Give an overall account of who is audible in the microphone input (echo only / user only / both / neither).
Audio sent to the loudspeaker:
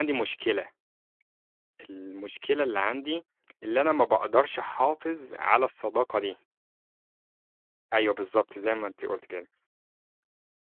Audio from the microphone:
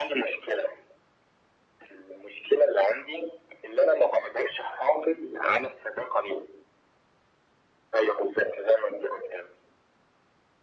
echo only